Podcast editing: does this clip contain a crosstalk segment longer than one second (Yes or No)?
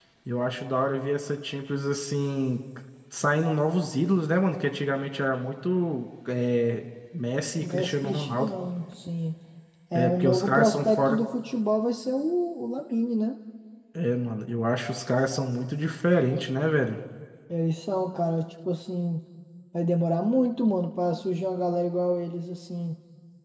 Yes